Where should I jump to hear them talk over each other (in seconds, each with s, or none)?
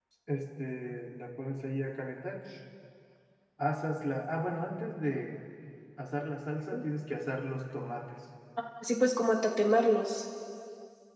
none